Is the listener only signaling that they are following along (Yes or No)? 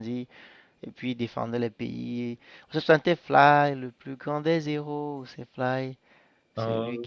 Yes